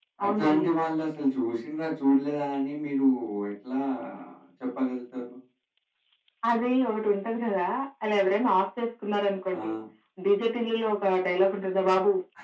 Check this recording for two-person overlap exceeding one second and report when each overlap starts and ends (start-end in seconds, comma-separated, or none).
none